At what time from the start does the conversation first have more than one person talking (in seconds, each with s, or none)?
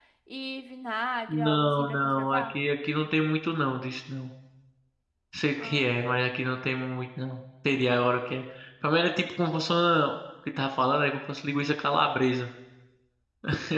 1.3 s